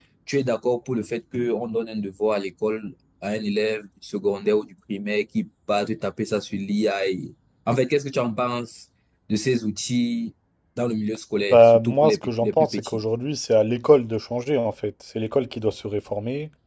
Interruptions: present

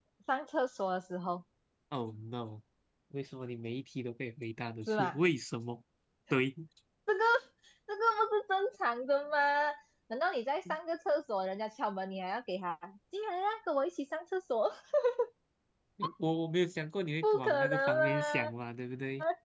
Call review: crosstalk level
present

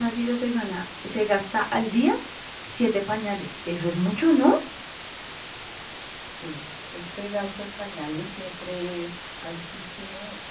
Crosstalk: none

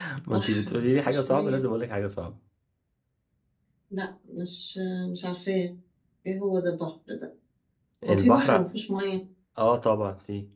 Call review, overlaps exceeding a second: present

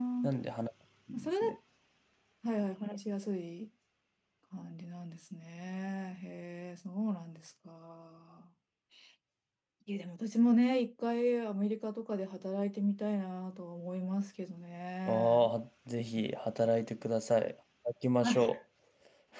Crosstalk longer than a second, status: none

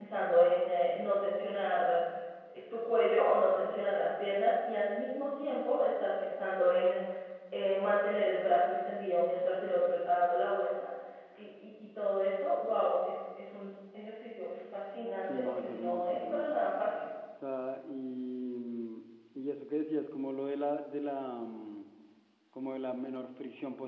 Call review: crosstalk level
present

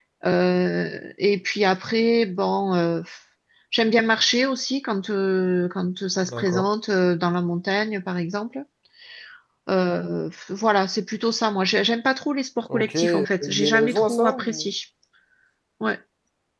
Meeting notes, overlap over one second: present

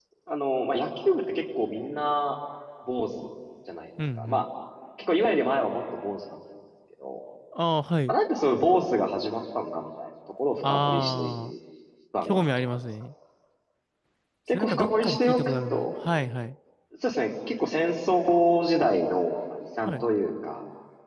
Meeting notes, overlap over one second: present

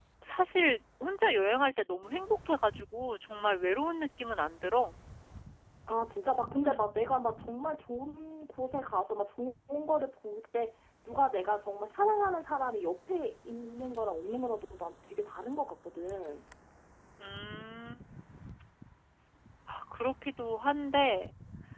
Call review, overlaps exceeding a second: none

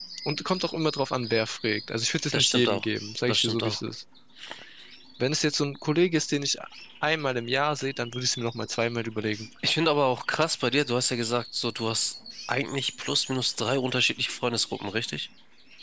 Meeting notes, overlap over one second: none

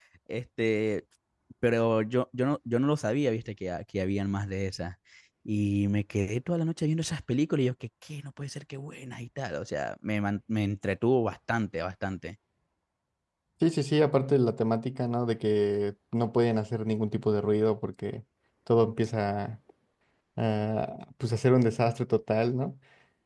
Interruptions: none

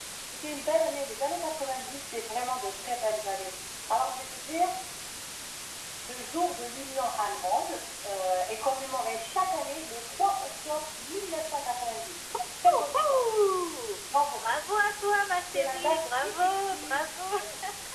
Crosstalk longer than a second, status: present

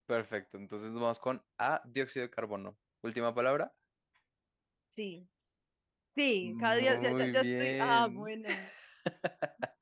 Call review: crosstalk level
present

